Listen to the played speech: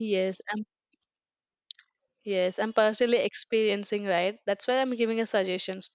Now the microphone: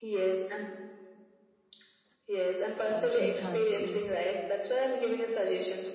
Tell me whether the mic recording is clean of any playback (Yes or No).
No